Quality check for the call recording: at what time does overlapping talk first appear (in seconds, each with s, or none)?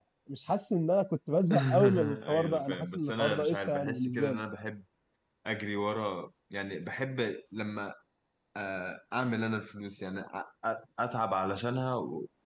1.5 s